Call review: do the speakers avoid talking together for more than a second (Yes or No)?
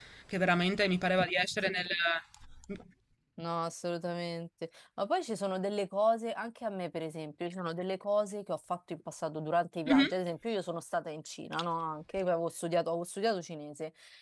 Yes